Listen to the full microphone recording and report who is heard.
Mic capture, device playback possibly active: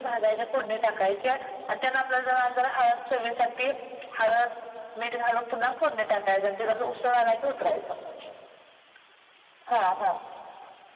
echo only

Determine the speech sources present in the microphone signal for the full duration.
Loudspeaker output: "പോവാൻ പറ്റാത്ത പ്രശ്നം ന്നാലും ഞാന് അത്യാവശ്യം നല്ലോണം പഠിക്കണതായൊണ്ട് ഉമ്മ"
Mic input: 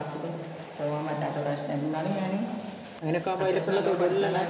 both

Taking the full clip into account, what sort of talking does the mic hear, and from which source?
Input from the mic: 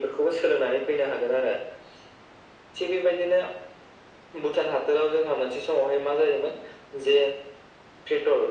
echo only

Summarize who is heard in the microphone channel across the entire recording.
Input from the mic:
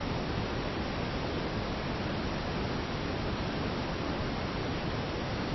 neither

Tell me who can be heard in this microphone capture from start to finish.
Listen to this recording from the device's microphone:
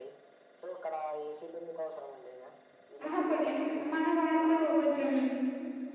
both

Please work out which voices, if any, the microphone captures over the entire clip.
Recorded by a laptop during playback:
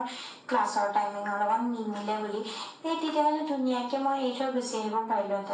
echo only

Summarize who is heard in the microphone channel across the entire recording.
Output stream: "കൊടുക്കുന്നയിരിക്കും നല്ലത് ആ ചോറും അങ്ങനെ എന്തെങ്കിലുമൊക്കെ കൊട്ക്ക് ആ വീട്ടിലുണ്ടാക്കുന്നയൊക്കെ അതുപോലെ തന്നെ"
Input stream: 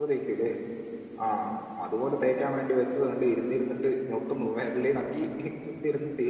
user only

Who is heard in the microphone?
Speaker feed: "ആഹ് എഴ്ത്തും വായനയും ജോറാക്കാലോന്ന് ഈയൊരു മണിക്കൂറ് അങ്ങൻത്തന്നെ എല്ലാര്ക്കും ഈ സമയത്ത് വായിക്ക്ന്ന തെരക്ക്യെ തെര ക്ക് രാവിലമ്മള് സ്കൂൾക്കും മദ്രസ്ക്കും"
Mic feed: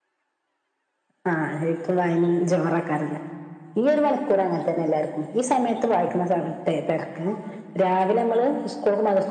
echo only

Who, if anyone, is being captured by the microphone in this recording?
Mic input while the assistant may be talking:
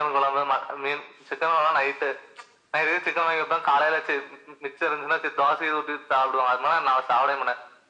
echo only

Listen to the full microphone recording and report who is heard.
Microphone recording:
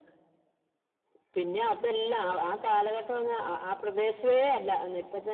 echo only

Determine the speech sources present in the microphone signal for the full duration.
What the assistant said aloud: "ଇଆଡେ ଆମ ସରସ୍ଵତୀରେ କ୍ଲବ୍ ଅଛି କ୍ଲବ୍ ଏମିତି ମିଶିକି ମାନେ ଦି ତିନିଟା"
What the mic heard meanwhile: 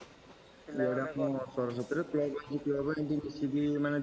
both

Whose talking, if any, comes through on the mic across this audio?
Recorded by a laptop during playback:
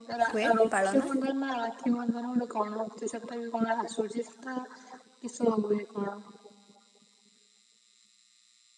both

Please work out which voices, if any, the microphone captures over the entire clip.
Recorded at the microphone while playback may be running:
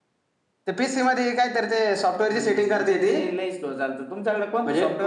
echo only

